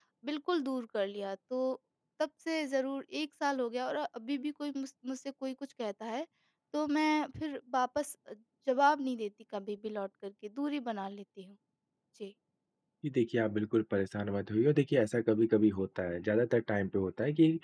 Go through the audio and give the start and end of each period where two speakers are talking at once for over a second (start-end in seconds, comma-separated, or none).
none